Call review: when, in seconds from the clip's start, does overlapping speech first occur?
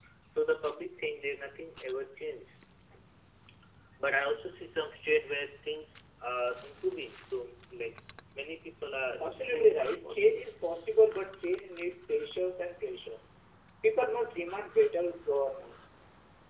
9.2 s

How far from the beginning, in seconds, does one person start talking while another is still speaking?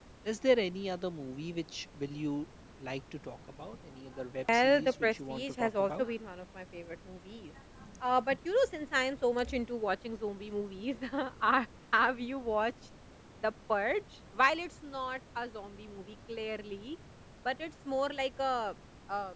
4.5 s

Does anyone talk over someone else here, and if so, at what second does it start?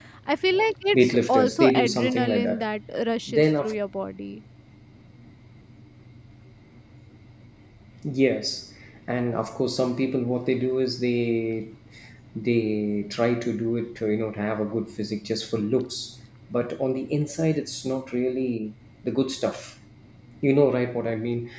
0.9 s

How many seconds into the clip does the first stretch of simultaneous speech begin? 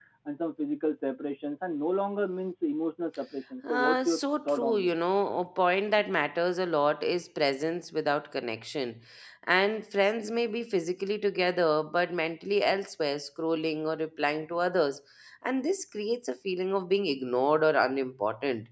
3.6 s

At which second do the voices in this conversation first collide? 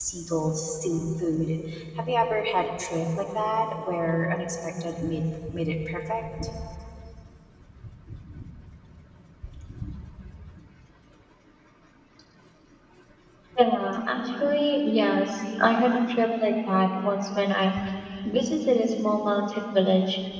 none

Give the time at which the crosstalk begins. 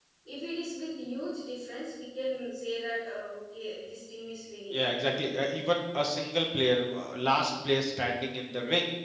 none

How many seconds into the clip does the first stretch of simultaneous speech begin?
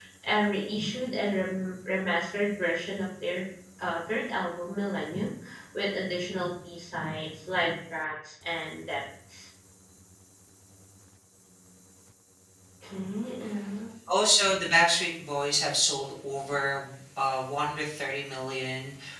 none

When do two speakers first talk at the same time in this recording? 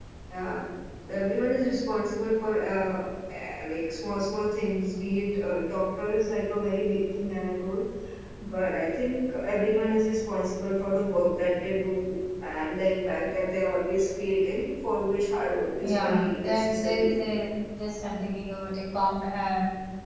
15.8 s

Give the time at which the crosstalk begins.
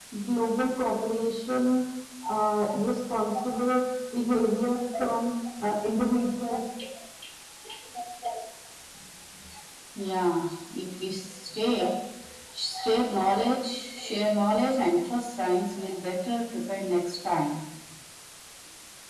none

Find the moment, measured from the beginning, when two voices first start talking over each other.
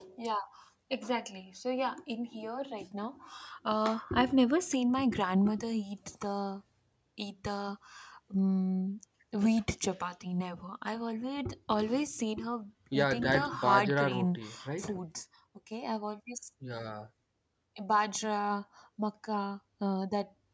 12.9 s

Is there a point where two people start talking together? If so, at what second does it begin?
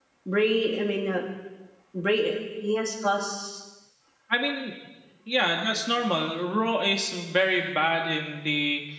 none

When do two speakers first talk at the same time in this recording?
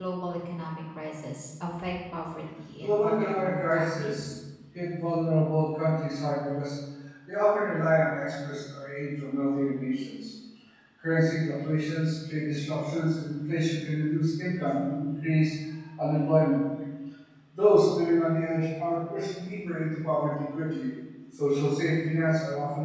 2.8 s

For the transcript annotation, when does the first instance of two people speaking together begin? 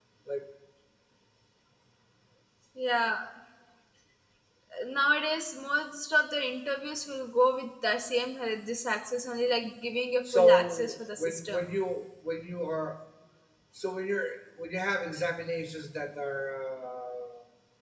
10.2 s

